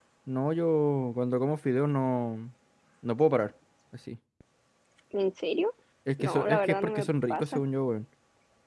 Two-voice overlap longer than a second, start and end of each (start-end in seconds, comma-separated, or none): 6.2-7.6